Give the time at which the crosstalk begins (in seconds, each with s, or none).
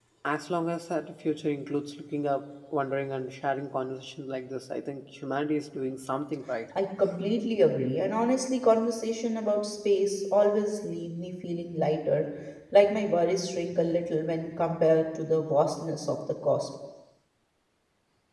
none